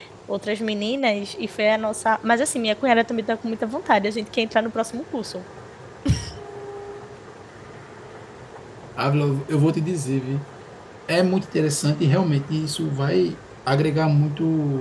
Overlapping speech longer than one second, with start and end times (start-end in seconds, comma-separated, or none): none